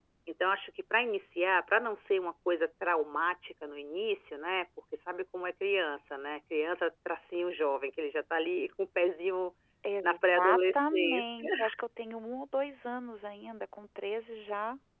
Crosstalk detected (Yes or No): Yes